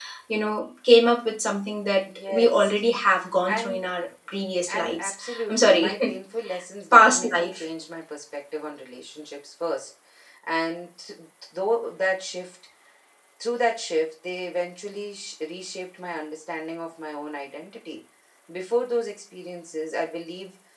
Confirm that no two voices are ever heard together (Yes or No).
No